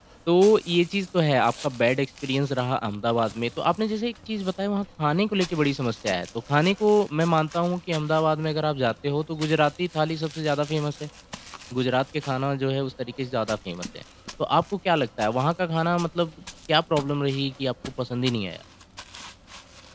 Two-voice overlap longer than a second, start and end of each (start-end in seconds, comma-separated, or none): none